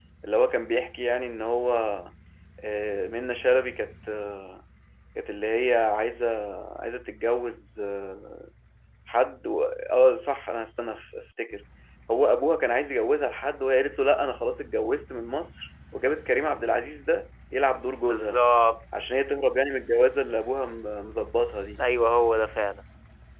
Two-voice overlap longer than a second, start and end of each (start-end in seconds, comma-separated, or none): none